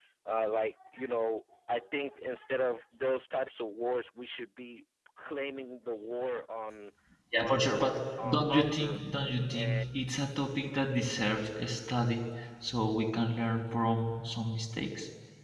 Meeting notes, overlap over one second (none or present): present